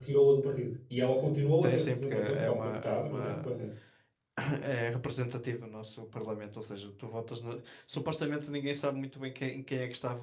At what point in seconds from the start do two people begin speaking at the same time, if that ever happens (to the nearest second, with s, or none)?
2 s